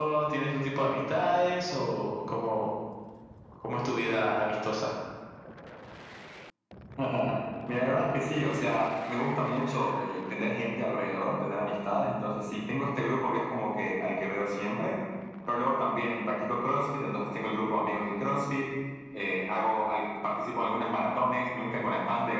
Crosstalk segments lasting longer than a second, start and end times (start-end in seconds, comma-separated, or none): none